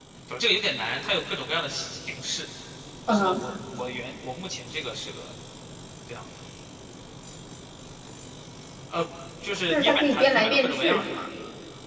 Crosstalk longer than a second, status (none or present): present